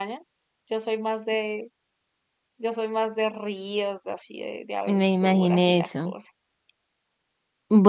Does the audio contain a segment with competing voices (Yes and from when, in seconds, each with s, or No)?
Yes, from 4.9 s